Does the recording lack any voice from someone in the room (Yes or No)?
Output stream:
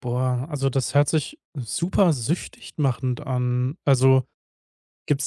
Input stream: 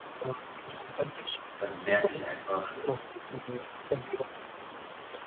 No